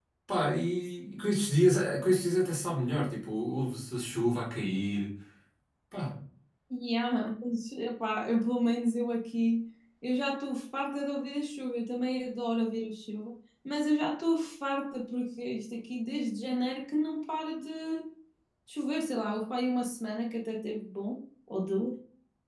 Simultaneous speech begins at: none

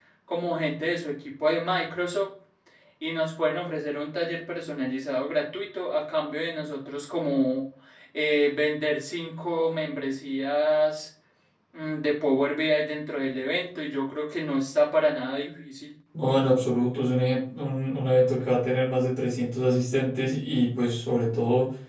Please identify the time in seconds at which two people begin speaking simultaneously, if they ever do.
none

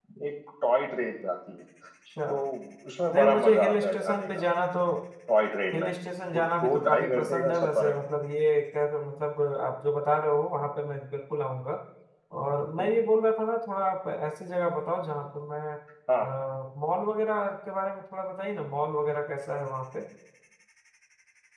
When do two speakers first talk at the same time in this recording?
3.1 s

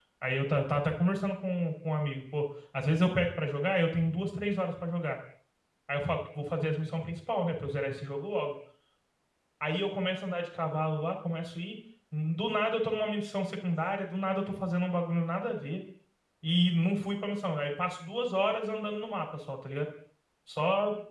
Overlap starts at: none

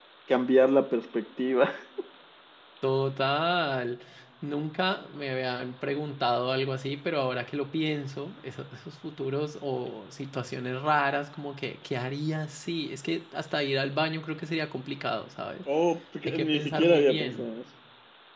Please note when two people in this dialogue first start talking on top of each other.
16.3 s

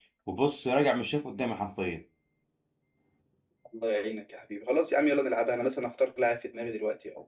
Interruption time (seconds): none

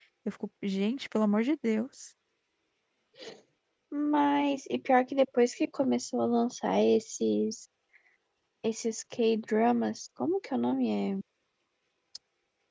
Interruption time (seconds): none

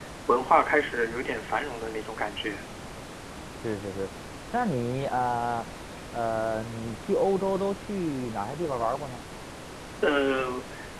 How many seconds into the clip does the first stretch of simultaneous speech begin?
none

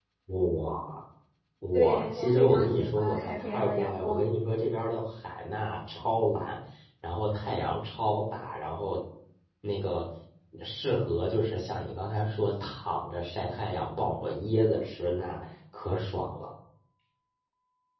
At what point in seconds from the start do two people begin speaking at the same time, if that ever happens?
1.7 s

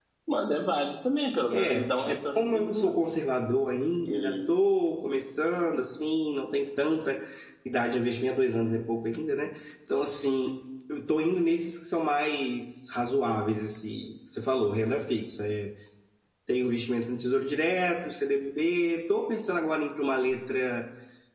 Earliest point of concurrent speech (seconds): 1.5 s

